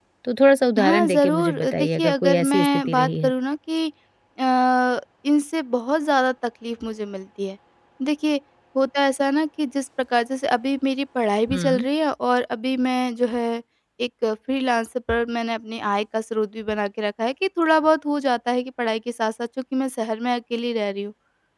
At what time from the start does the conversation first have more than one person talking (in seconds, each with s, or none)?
0.8 s